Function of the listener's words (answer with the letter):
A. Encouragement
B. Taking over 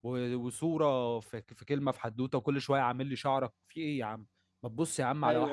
B